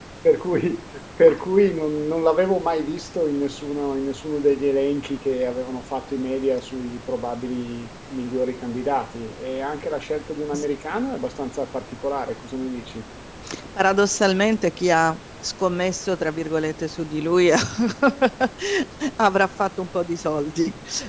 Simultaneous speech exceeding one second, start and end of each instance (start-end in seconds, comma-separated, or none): none